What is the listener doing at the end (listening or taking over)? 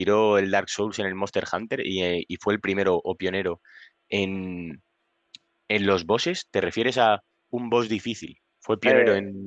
taking over